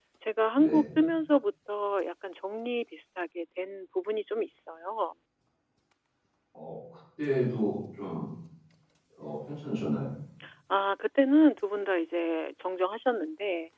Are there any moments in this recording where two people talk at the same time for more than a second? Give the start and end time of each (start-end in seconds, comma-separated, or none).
none